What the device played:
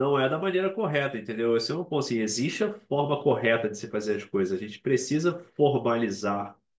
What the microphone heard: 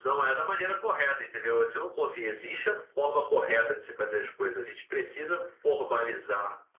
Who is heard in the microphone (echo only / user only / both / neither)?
echo only